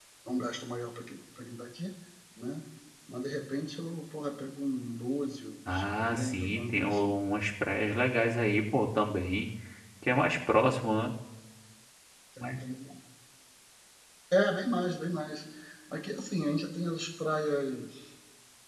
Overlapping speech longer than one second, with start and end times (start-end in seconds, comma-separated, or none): 5.7-7.2